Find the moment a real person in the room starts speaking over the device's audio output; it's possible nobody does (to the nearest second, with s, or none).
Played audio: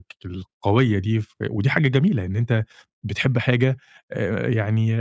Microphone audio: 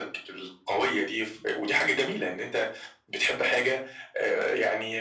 none